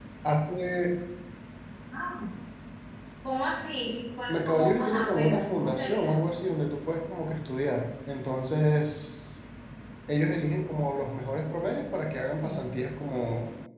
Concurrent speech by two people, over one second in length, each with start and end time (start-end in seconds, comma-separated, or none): 4.3-6.2